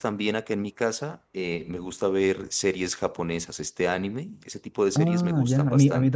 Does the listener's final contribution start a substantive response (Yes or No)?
Yes